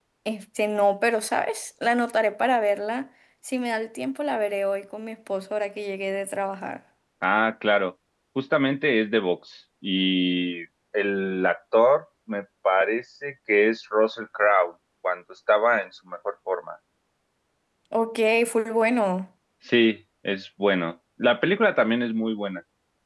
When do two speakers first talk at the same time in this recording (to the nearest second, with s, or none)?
none